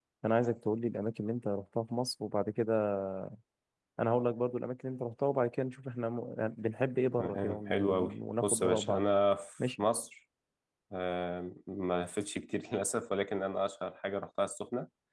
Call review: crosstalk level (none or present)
present